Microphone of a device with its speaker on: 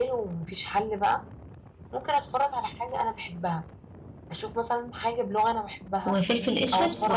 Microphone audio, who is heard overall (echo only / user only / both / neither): both